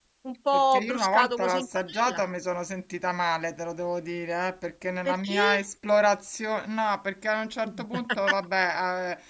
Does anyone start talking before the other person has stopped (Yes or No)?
Yes